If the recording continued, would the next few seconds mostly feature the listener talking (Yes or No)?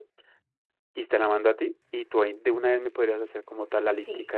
Yes